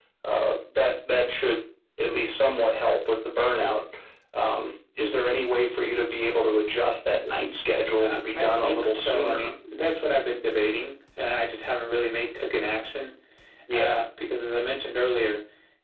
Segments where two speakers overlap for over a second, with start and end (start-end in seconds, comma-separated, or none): 8.0-9.5